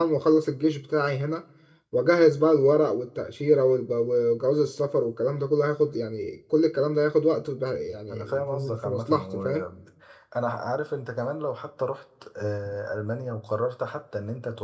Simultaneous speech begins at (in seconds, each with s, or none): 8.1 s